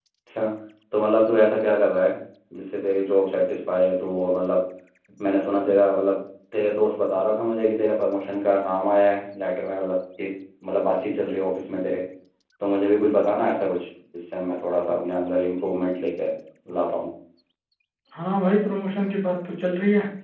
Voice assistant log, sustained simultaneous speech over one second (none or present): none